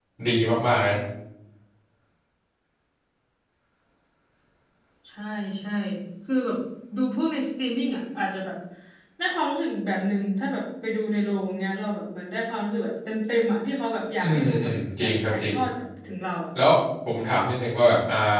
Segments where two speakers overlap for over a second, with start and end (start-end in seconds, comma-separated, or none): 14.2-15.5